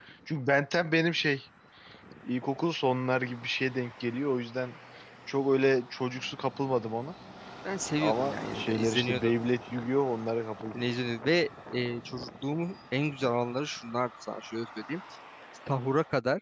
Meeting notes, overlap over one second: present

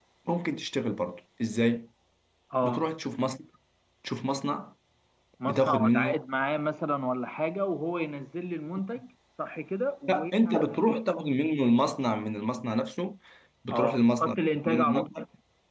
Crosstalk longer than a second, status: present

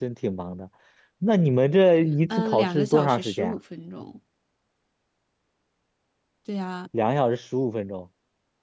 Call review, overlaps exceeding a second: present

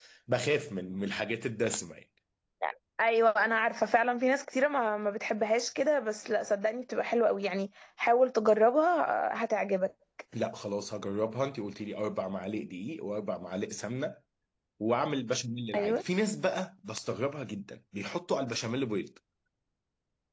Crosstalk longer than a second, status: none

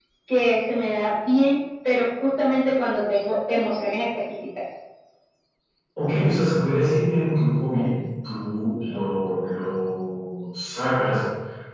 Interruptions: none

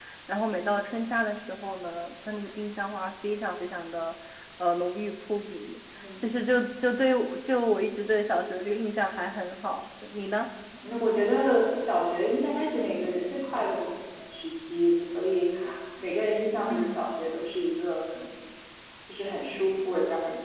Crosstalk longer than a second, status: none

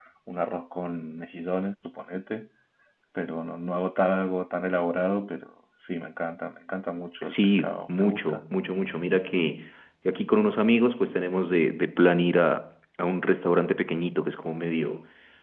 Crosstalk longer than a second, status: present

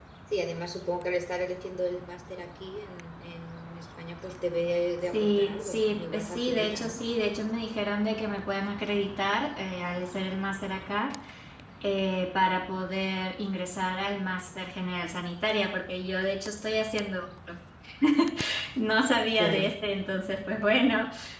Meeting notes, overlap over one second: present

